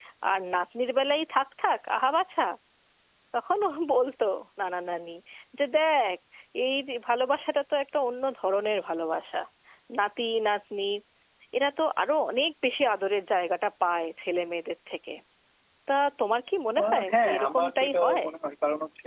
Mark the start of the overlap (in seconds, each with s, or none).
16.8 s